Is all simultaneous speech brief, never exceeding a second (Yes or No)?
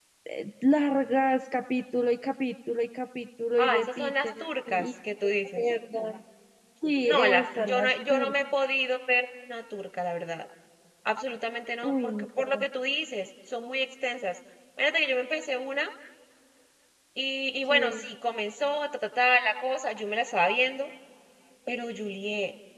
No